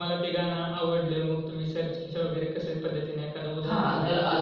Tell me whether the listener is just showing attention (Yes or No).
No